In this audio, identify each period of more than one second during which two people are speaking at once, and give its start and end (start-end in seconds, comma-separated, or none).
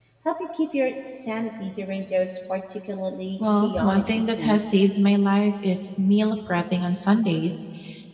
3.6-4.8